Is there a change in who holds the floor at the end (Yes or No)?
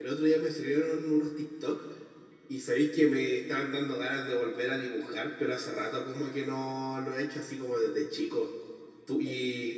No